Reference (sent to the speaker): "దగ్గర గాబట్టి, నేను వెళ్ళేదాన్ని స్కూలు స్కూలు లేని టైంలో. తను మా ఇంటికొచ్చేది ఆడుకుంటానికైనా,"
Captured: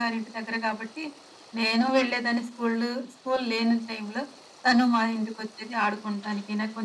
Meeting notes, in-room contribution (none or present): none